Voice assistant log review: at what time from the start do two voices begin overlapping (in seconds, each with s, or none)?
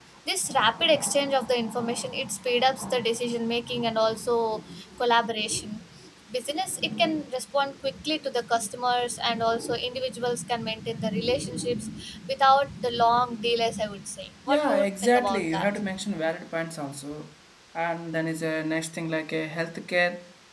14.5 s